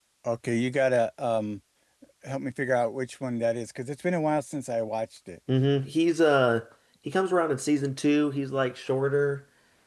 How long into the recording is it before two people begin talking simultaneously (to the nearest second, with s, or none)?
none